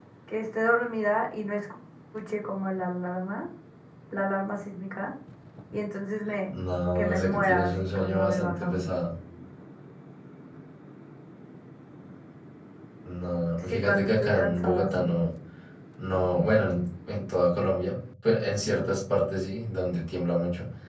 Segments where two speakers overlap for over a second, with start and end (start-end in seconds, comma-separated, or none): 7.0-8.8, 13.7-15.2